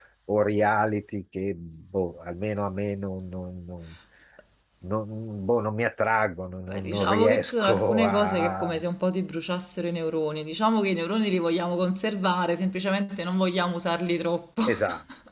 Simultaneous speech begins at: 6.7 s

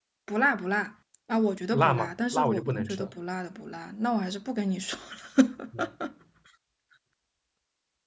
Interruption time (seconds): 1.7 s

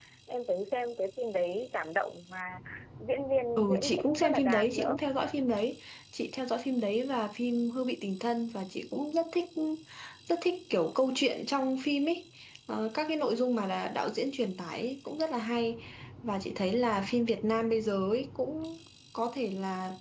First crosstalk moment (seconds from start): 3.6 s

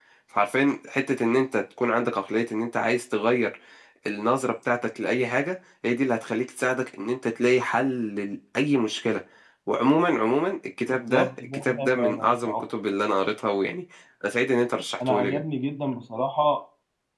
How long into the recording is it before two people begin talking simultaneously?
10.9 s

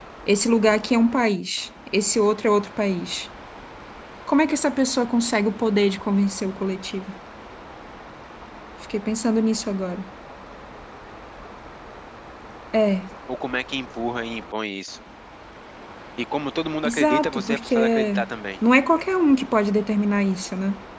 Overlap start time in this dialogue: 16.8 s

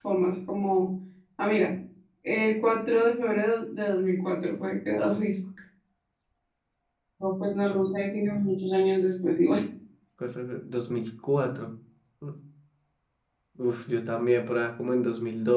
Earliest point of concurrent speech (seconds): none

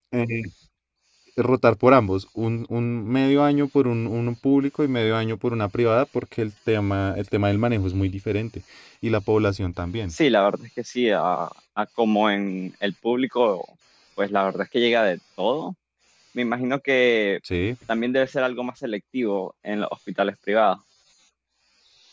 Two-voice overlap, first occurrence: none

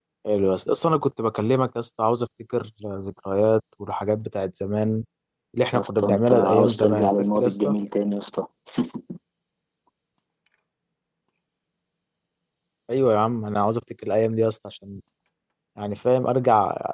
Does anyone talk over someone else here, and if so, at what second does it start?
5.7 s

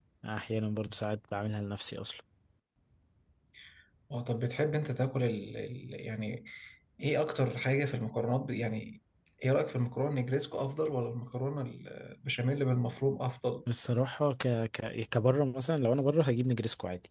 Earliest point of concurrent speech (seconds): none

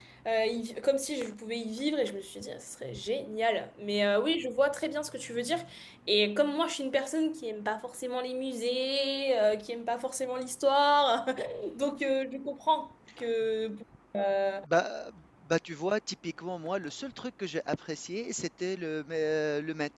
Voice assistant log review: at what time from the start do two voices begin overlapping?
none

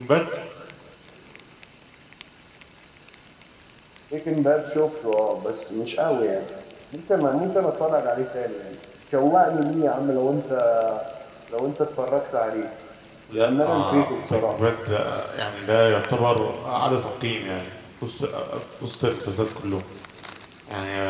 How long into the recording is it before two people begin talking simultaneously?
13.3 s

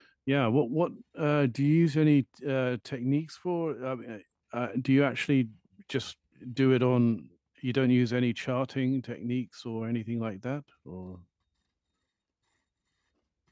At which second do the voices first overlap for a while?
none

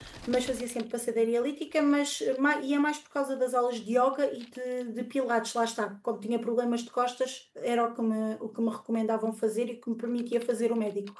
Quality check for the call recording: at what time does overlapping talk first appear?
none

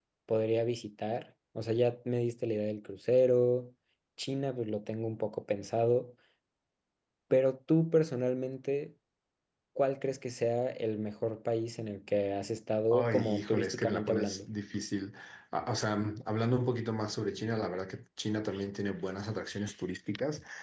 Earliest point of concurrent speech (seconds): 12.9 s

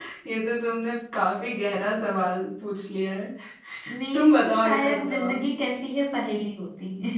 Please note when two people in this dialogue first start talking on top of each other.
4.1 s

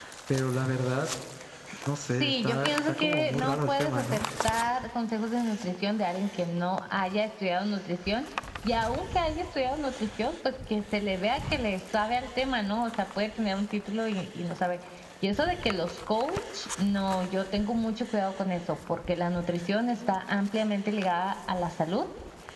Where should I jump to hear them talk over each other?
2.2 s

